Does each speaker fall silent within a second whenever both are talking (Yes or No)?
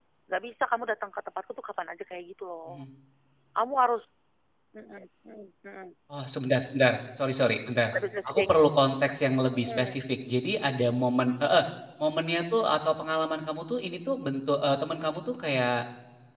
Yes